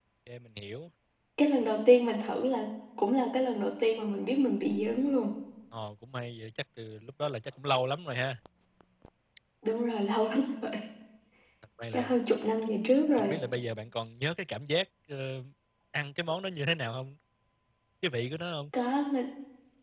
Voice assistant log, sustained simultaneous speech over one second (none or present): none